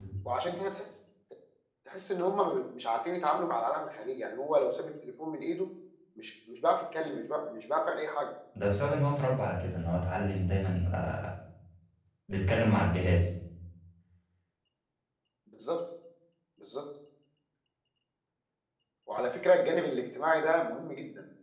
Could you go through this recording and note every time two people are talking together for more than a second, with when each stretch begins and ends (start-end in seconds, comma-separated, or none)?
none